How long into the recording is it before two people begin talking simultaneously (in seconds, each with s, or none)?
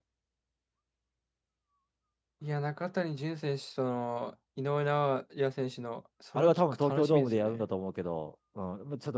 6.3 s